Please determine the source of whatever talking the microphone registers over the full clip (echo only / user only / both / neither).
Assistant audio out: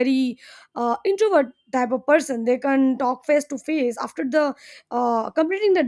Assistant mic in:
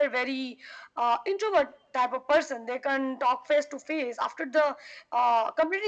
echo only